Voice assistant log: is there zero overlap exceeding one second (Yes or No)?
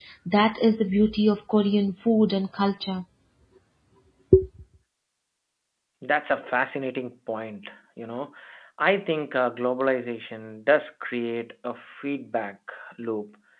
Yes